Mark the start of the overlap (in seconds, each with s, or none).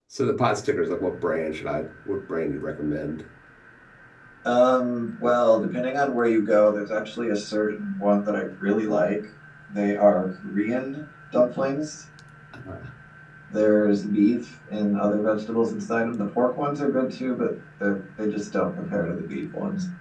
none